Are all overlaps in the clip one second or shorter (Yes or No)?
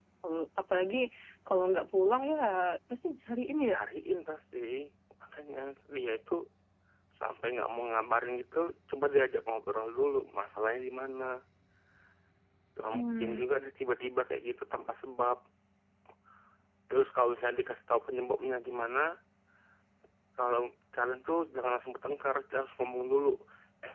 Yes